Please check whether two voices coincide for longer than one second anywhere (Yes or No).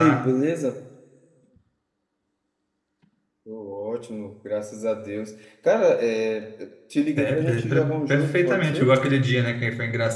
Yes